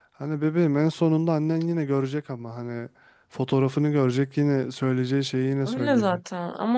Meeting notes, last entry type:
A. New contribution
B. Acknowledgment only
A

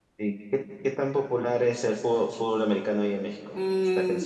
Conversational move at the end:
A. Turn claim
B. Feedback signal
A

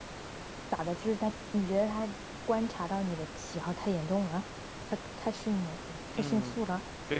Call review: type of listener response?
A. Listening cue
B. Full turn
B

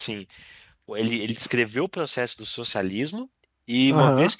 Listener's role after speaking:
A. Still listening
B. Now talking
B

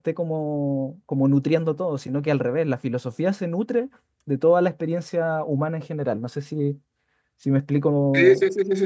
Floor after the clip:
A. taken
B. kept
A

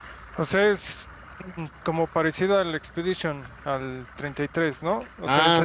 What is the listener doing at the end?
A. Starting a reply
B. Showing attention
B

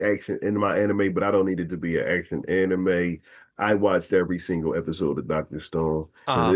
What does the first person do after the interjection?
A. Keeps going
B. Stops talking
A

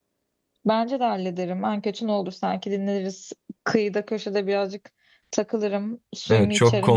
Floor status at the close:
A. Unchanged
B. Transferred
B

